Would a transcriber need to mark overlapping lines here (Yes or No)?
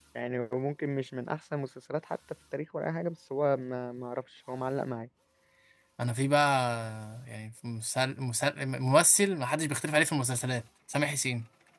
No